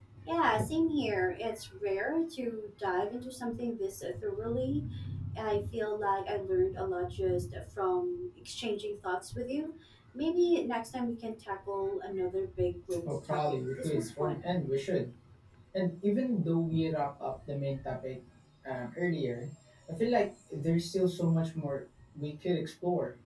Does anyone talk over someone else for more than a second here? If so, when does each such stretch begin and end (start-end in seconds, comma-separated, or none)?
13.1-14.4